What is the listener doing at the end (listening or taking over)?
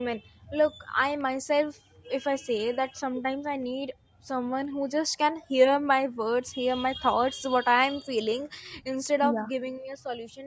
listening